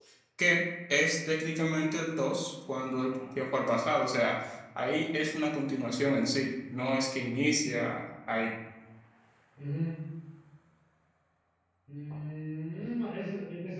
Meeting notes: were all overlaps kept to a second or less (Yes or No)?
Yes